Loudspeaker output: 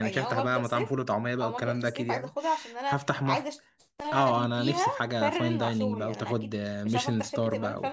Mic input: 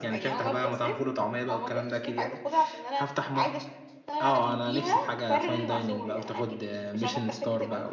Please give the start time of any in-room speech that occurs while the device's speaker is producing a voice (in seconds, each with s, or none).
none